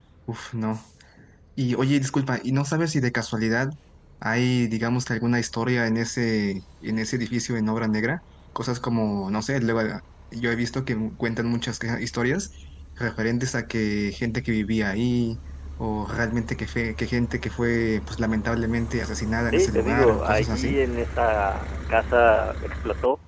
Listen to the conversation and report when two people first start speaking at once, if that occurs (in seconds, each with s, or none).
19.5 s